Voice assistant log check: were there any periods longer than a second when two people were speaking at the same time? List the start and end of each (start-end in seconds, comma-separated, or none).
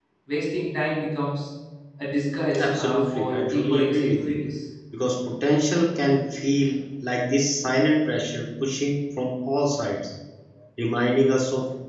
2.6-4.3